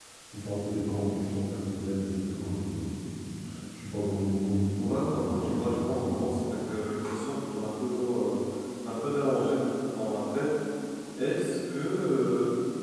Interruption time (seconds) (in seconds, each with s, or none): 4.8 s